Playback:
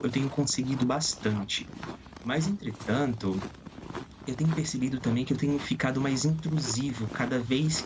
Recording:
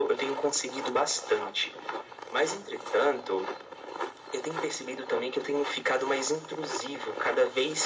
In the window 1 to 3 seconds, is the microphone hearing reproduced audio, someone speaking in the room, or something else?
echo only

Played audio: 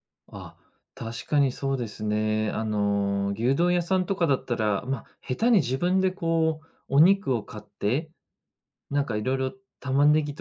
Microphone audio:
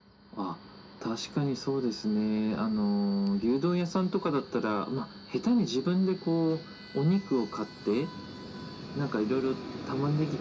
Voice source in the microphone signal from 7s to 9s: echo only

